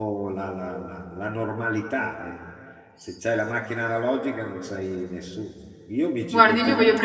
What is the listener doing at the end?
taking over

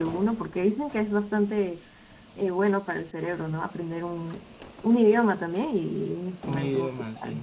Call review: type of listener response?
taking over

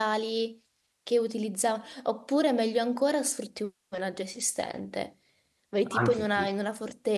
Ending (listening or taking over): listening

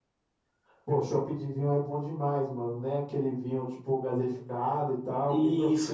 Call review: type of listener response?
taking over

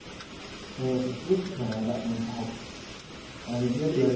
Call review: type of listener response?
listening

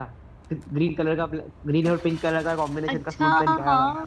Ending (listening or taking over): taking over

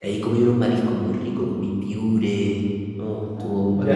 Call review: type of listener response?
taking over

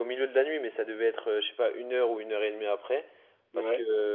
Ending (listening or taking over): listening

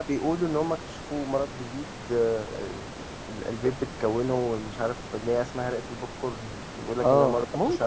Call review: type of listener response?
taking over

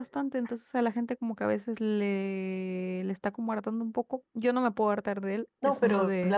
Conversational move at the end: taking over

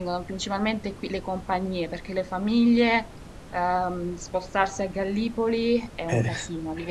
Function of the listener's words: listening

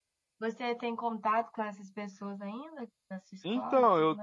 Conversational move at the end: taking over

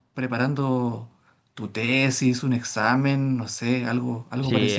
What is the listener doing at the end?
taking over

